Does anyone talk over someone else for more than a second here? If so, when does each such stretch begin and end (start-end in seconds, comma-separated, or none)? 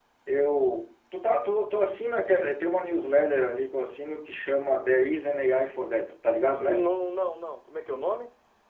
none